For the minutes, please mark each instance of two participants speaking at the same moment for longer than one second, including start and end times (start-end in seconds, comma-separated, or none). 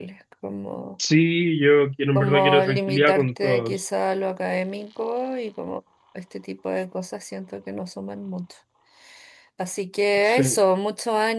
2.2-3.8